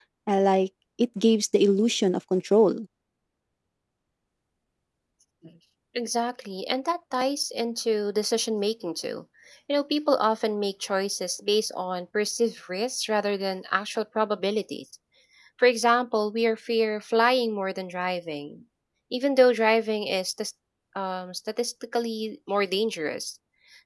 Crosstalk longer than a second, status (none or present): none